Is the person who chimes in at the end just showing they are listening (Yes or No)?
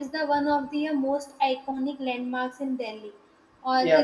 Yes